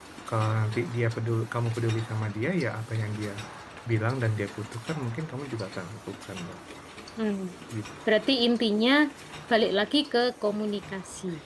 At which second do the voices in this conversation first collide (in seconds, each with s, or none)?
none